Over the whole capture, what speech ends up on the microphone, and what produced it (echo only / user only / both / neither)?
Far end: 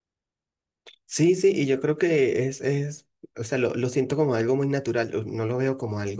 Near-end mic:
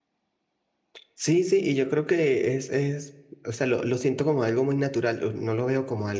echo only